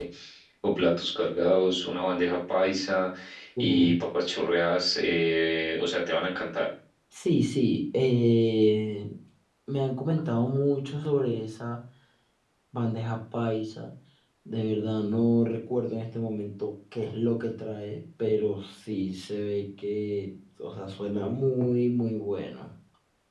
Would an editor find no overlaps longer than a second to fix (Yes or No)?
Yes